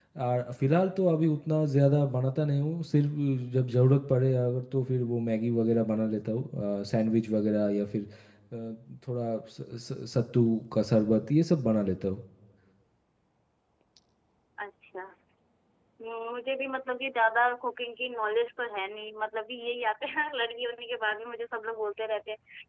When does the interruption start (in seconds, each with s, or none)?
none